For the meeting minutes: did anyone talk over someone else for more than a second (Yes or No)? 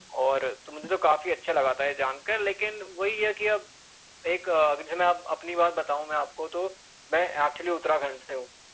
No